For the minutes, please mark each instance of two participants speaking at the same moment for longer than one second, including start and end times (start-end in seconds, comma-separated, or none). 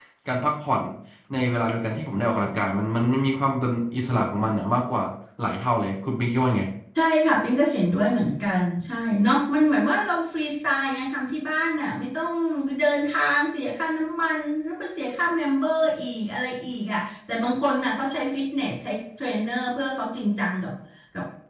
none